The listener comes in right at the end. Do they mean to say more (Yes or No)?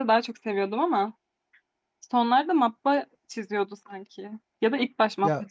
Yes